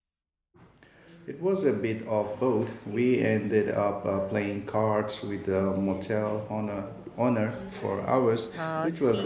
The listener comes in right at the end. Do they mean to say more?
Yes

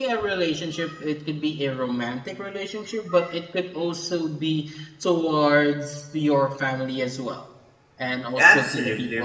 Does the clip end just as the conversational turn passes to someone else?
Yes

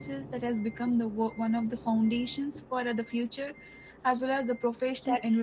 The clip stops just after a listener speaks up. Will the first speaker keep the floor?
No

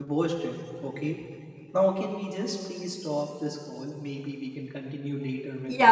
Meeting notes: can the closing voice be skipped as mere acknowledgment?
No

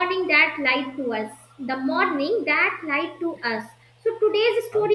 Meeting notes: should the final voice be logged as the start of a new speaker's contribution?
No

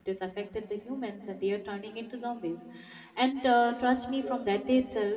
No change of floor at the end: Yes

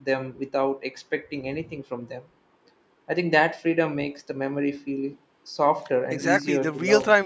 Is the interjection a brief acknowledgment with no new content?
No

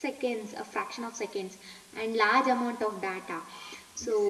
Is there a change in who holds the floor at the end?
No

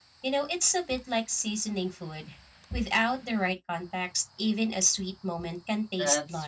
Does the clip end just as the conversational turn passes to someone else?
Yes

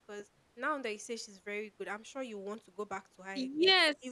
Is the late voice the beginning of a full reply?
Yes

